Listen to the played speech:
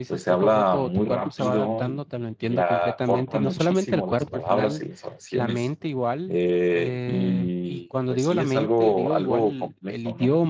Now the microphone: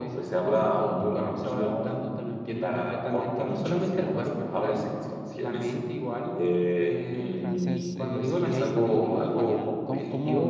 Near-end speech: present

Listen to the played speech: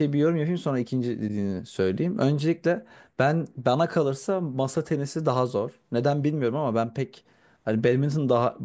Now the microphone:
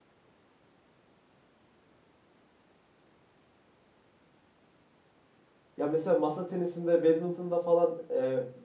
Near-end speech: present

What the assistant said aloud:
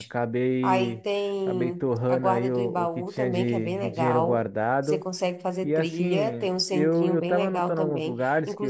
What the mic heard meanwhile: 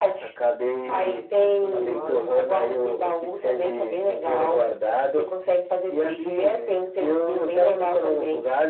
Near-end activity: present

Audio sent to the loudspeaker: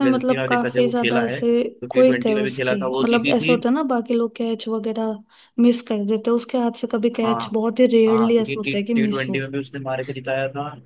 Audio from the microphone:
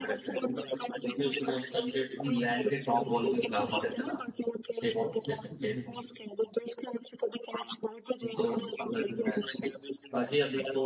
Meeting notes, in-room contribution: present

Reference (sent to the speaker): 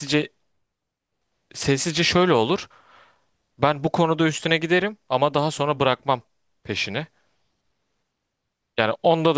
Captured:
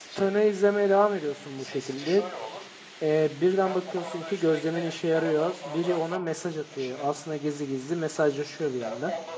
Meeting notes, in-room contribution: present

